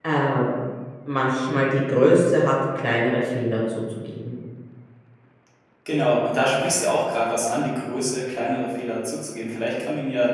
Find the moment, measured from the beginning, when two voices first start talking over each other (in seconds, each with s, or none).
none